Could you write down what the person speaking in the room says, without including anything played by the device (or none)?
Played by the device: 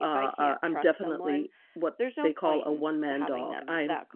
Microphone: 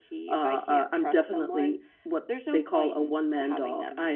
none